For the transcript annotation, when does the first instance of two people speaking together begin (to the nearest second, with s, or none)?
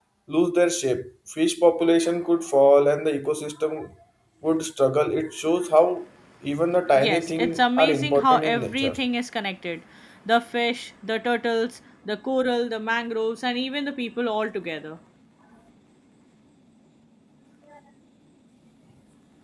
7 s